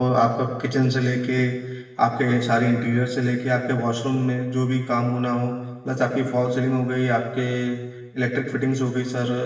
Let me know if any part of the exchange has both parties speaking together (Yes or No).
No